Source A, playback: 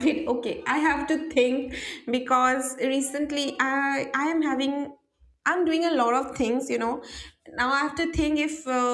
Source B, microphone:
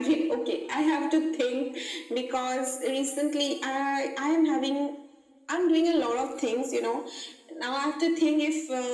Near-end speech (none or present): none